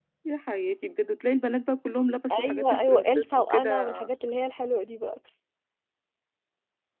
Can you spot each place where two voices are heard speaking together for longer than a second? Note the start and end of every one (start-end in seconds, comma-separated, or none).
2.5-4.0